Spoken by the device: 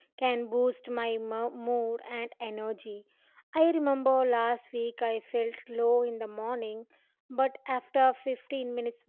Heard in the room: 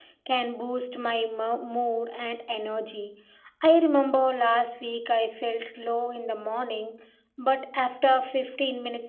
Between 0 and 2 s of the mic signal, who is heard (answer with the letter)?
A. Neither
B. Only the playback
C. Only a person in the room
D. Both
B